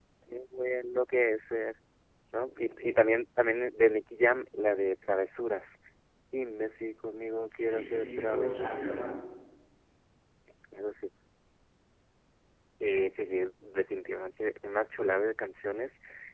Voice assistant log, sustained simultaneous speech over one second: present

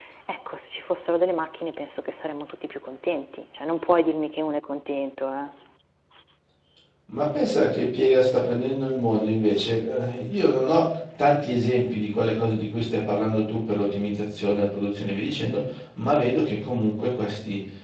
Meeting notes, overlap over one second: none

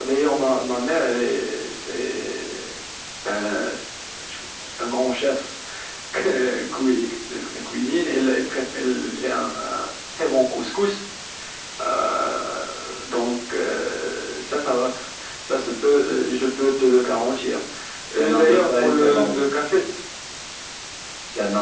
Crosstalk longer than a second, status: present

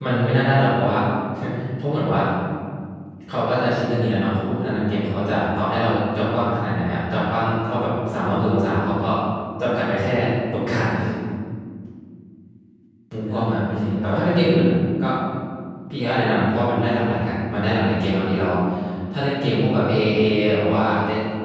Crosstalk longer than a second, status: present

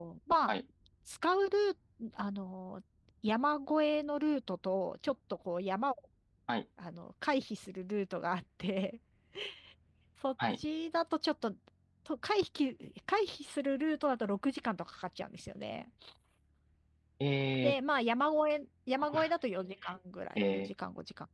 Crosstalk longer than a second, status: none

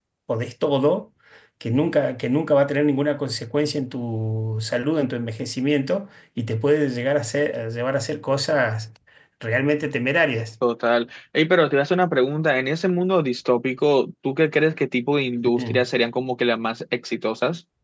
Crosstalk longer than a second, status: none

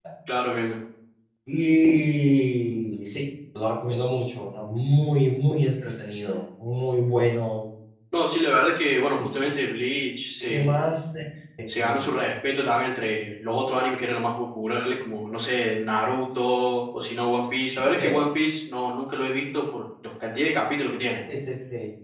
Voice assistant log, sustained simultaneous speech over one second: none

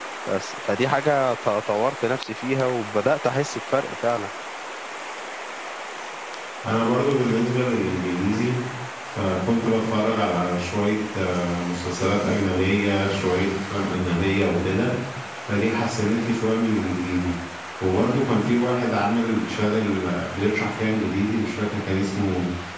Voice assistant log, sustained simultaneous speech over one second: none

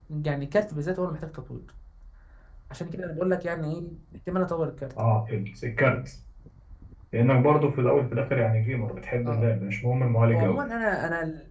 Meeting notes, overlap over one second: none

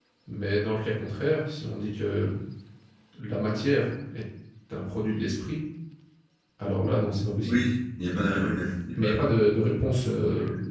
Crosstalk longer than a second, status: none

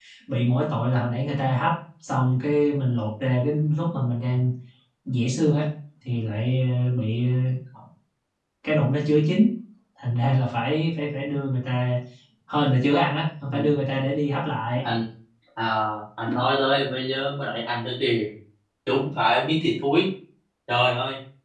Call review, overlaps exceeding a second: none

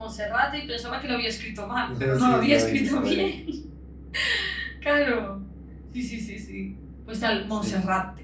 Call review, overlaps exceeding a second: present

